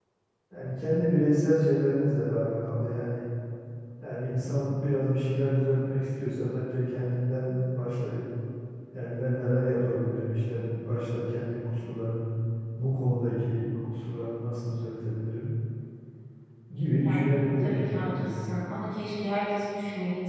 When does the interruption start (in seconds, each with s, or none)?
17.0 s